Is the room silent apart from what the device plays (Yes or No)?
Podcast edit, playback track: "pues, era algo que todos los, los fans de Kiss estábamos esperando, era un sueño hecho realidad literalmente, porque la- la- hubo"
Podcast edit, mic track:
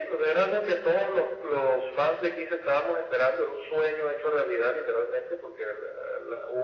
Yes